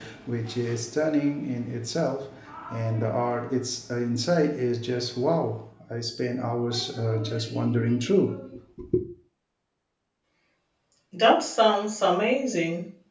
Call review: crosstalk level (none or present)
none